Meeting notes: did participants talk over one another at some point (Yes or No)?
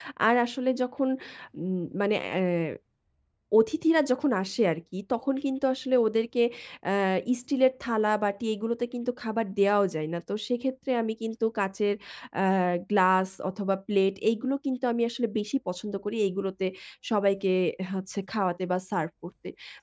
No